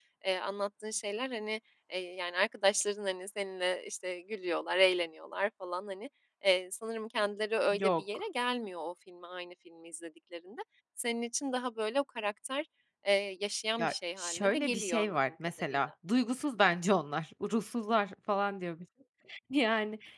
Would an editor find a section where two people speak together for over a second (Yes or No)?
Yes